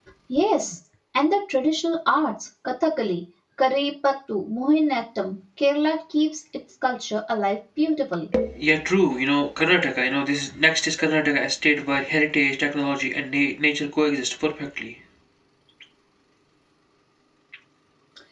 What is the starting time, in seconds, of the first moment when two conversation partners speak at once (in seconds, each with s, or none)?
none